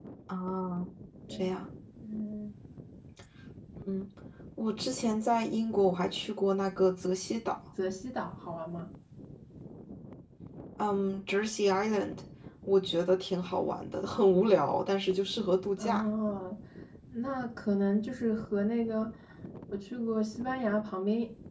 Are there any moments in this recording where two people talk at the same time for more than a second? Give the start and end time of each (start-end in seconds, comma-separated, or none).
none